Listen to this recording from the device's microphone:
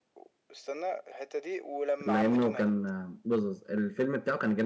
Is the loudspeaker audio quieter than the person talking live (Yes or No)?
Yes